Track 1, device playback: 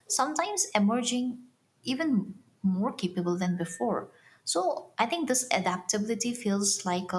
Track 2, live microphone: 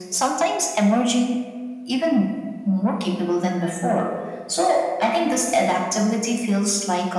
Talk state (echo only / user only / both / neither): echo only